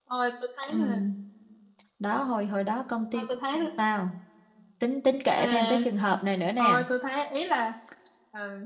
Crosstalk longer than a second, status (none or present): none